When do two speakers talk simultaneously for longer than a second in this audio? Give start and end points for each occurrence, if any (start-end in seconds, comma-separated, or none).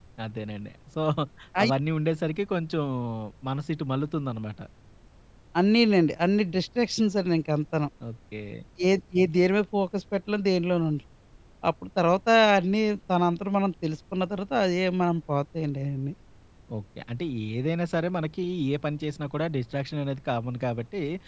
none